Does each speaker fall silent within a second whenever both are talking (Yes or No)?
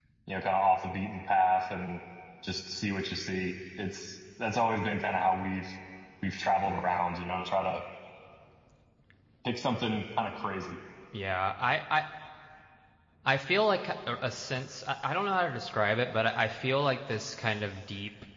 Yes